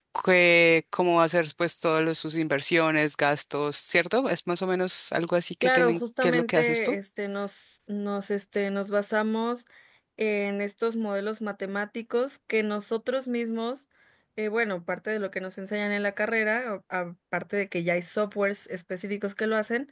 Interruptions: present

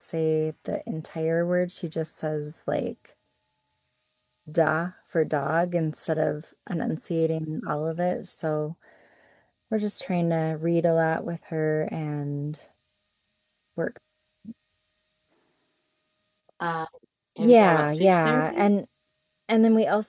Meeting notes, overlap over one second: present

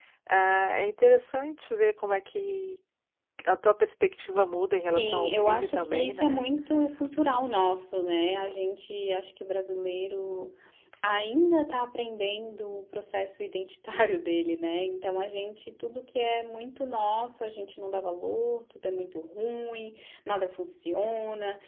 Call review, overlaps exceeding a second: present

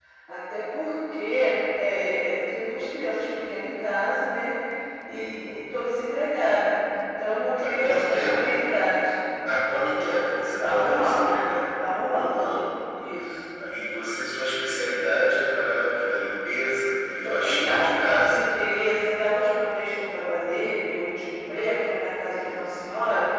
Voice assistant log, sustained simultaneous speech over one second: present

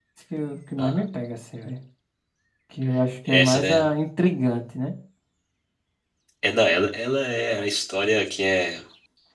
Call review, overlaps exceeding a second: none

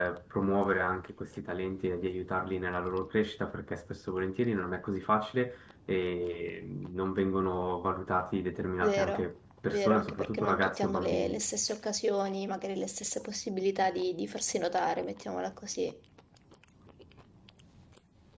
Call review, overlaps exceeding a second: present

